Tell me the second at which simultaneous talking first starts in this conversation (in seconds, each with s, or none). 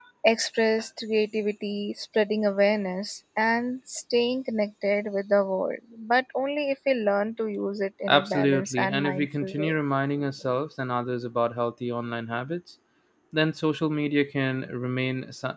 8.1 s